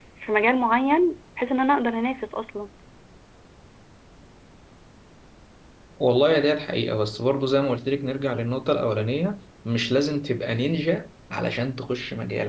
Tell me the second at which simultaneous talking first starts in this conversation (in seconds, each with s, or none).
none